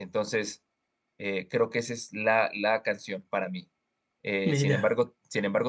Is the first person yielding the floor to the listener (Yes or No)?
No